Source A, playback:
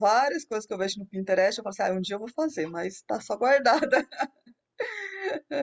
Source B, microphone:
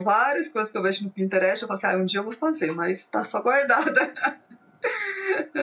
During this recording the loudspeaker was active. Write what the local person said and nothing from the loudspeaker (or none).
none